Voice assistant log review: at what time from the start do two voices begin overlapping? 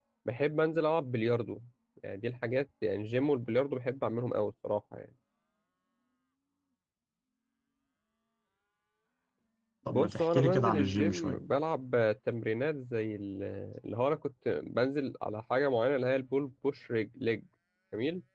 9.9 s

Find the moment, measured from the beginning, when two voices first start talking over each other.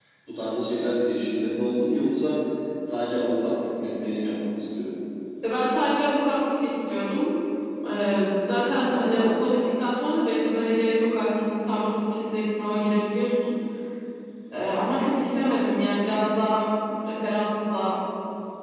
none

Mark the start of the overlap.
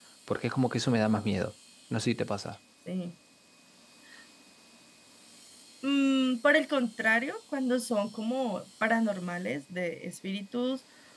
none

